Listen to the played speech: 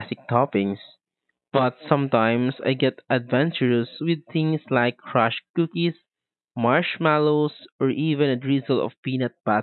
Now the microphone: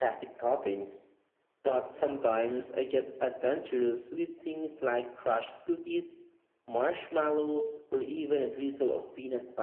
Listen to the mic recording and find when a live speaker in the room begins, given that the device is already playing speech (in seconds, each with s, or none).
none